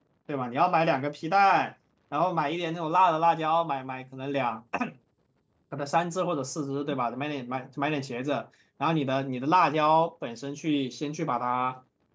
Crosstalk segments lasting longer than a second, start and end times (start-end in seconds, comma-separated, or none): none